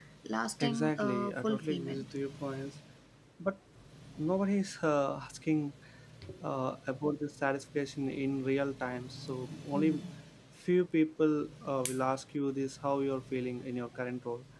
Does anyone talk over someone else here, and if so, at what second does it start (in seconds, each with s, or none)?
0.6 s